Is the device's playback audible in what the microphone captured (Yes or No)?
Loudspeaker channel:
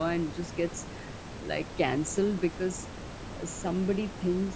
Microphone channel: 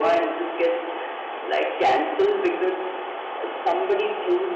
Yes